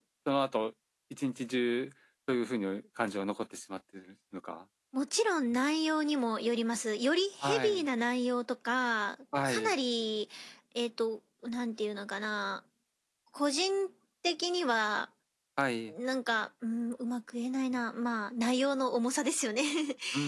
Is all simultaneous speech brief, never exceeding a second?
Yes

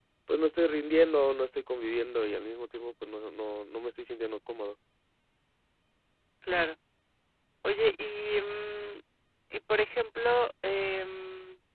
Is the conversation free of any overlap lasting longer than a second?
Yes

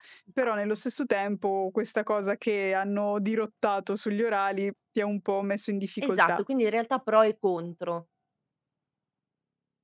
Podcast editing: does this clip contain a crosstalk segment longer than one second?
No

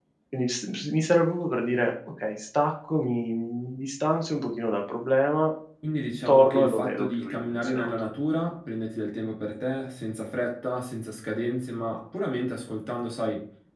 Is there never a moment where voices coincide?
No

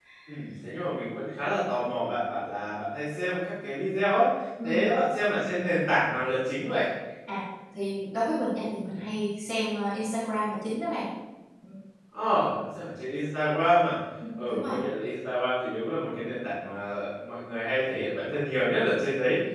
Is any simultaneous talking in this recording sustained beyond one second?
No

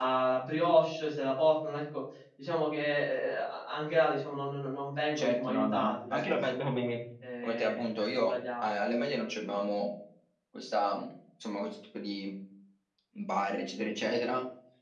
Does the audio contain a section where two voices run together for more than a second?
Yes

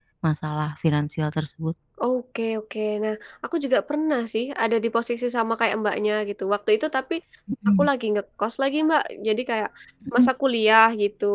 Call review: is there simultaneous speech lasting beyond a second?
No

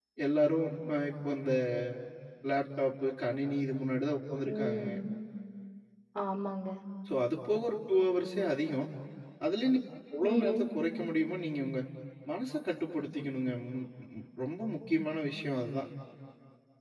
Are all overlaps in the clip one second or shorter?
Yes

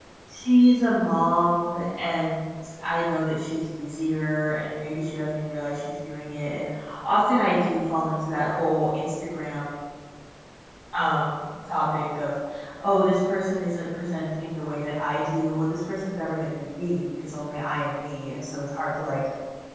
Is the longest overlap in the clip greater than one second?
No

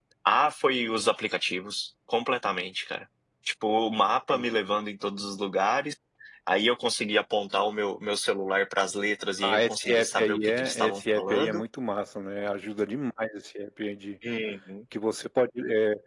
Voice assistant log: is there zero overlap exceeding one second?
No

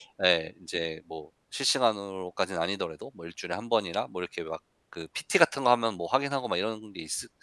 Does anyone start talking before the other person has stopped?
No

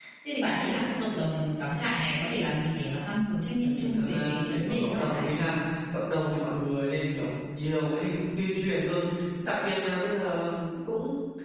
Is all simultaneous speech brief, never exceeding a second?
No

